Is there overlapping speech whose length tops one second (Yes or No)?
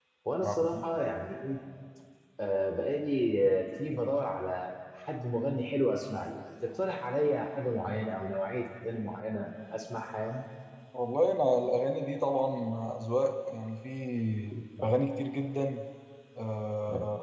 No